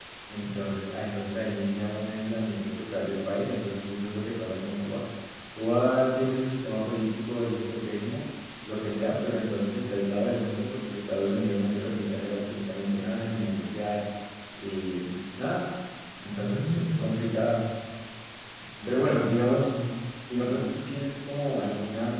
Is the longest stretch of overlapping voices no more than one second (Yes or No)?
No